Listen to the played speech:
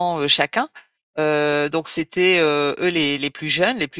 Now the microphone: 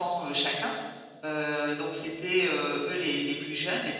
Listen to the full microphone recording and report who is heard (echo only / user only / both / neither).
echo only